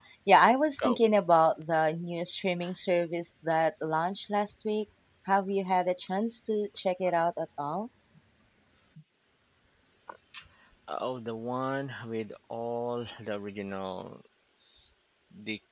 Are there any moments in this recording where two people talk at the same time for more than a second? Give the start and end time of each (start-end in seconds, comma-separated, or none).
none